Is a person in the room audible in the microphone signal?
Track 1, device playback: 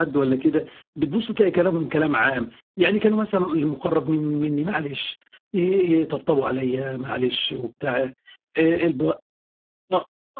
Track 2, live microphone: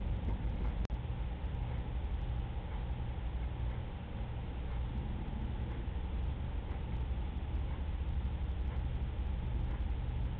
No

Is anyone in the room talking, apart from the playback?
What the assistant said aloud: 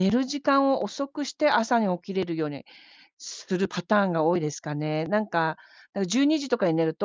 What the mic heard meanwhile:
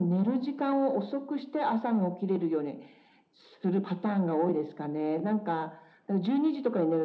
No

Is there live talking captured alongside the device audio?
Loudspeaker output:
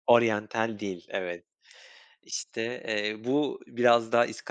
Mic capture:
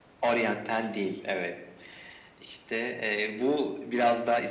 No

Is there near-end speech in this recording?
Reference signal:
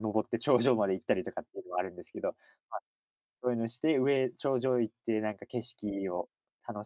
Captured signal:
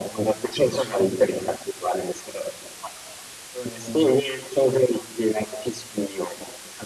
No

